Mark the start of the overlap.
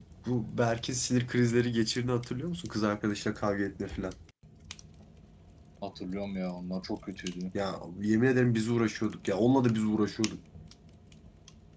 none

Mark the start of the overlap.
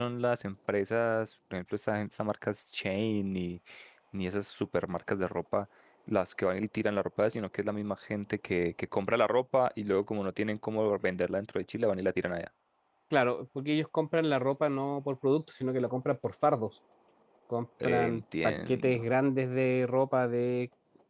17.8 s

